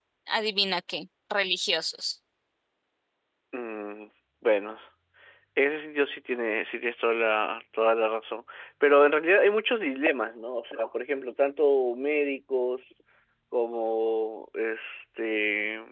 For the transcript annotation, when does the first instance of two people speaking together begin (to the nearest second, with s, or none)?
none